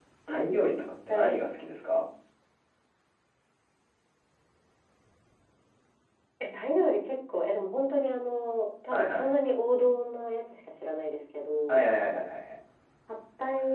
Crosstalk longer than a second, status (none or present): none